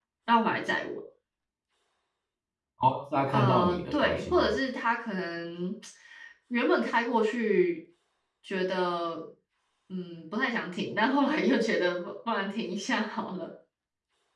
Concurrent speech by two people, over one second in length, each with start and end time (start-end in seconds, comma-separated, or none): 3.3-4.6